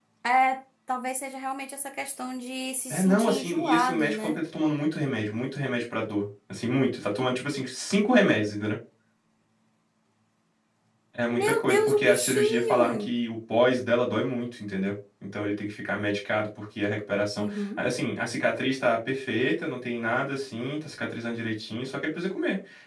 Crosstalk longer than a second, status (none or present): present